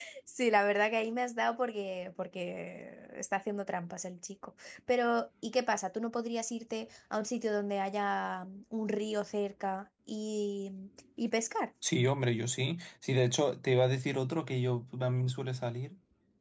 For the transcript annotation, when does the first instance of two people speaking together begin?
none

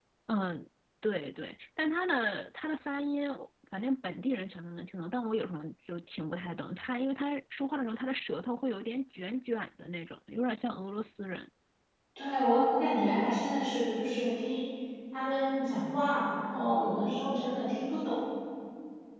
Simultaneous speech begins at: none

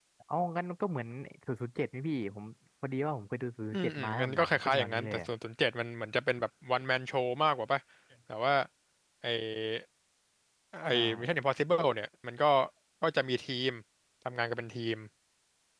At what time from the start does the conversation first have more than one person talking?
3.7 s

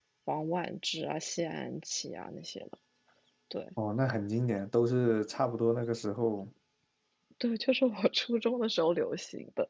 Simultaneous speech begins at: none

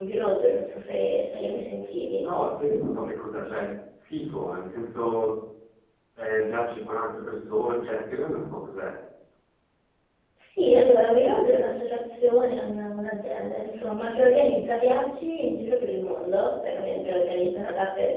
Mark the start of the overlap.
none

